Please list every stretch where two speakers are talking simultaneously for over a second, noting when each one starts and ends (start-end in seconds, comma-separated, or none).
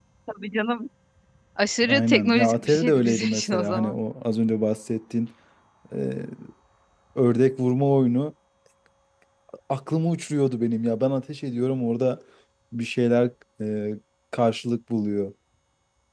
1.9-4.0